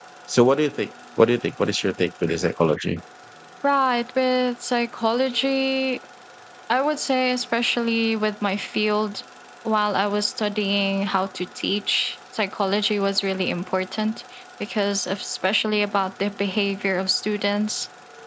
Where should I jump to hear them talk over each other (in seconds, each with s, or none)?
none